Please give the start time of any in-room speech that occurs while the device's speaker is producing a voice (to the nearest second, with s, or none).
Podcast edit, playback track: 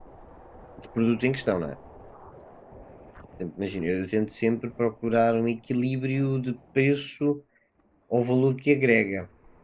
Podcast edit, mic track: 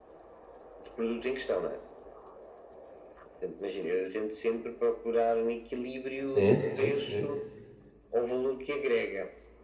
6 s